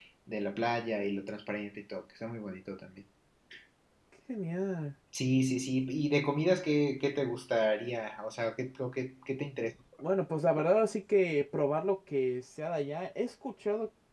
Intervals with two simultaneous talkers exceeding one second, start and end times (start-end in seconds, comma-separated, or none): none